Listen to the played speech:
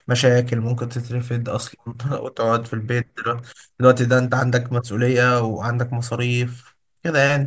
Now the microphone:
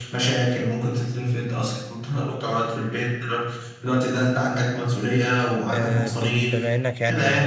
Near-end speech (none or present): present